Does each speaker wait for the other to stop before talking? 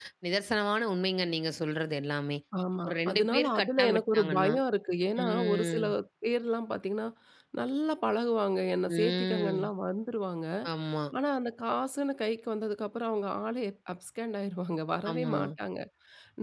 No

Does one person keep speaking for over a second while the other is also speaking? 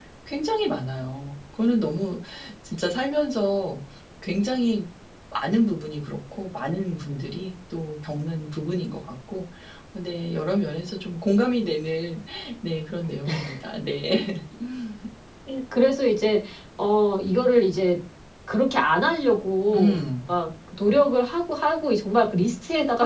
No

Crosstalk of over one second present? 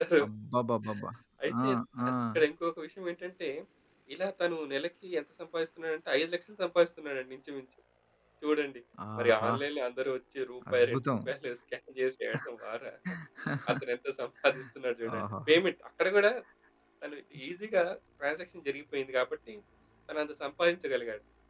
No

